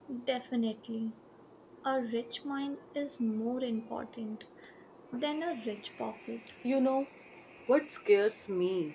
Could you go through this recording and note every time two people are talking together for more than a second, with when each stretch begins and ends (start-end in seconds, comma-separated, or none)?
none